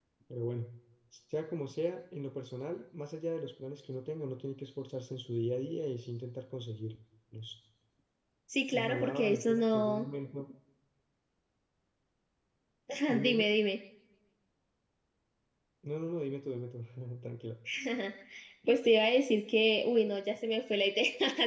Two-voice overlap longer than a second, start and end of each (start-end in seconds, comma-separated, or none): 8.7-10.1